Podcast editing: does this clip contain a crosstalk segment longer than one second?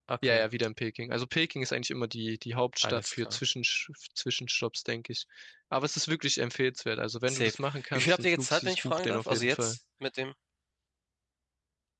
Yes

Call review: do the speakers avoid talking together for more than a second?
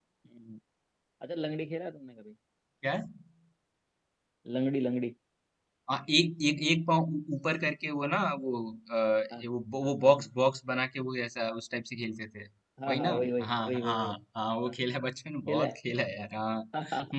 No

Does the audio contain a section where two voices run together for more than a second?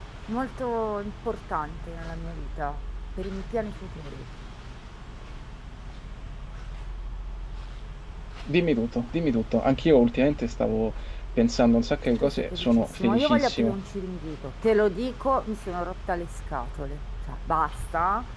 Yes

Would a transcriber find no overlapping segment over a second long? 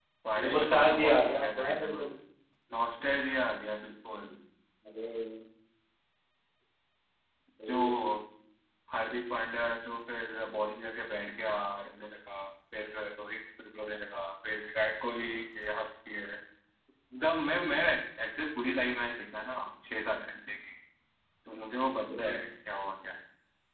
No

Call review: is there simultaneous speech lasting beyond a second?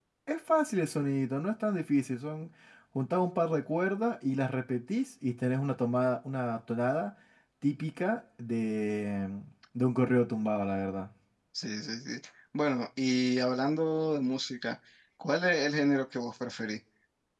No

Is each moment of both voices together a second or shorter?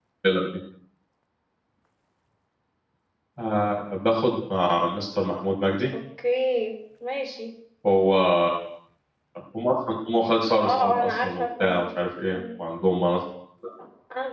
No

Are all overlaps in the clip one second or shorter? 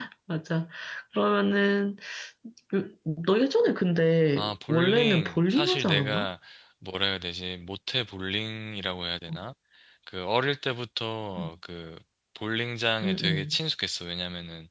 No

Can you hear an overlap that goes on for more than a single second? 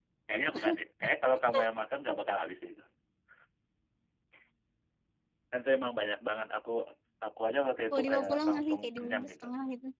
Yes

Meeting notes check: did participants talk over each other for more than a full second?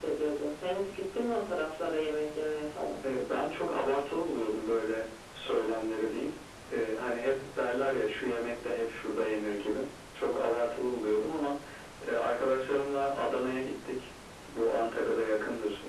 No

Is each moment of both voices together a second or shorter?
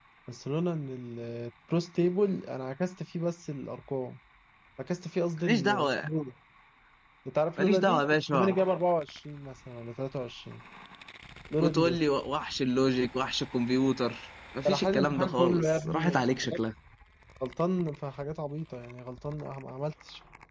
No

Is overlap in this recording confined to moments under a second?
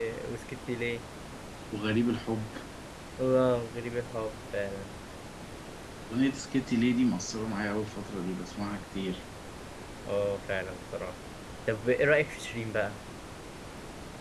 Yes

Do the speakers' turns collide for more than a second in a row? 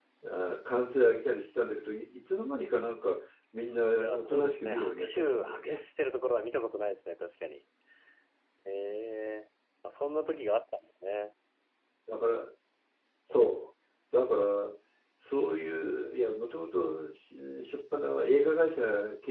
Yes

